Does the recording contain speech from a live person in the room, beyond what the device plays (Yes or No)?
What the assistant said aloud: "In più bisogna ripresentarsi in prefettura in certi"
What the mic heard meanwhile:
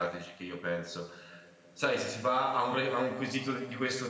Yes